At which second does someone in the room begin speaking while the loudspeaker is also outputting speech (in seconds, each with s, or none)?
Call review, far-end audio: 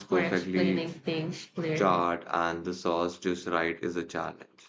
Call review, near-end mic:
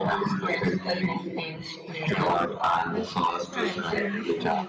2.9 s